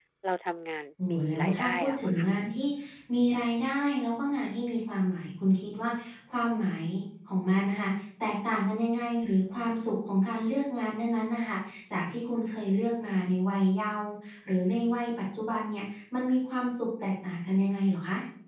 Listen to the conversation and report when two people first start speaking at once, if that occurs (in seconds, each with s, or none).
1.1 s